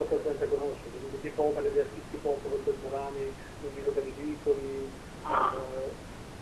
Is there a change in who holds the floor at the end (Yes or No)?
No